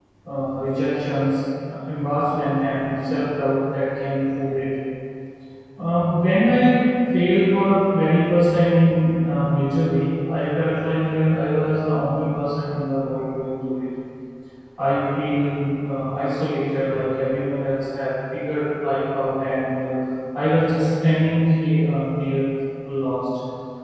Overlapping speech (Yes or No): No